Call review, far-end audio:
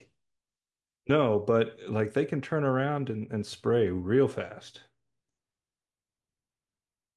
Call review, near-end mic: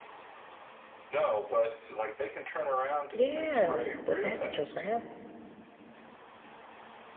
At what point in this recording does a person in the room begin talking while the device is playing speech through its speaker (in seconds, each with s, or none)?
3.1 s